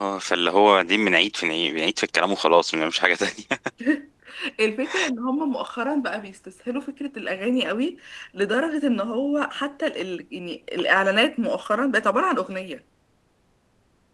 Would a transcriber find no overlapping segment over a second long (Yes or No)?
Yes